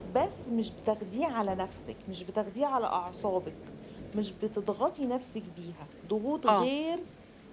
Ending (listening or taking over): listening